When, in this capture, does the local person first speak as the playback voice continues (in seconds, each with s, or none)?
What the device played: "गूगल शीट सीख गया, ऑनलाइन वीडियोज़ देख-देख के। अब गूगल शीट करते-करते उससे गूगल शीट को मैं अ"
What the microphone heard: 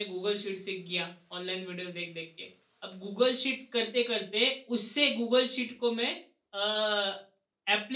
none